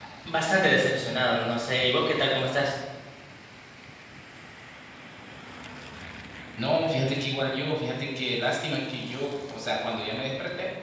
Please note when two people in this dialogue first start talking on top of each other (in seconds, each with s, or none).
none